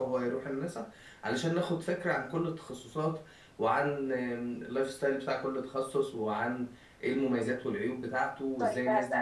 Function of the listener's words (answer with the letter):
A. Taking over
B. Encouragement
A